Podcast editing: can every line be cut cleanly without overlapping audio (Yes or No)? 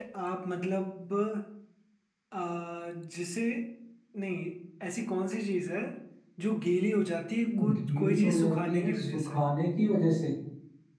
No